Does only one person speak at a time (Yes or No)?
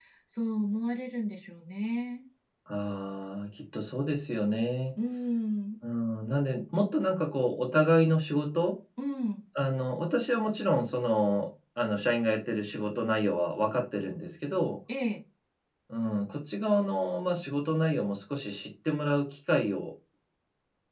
Yes